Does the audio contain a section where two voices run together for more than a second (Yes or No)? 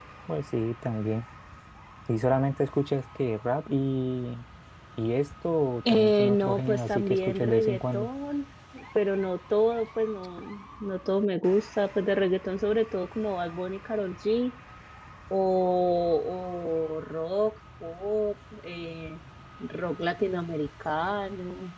Yes